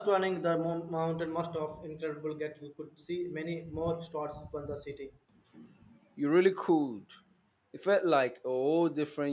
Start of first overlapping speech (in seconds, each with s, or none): none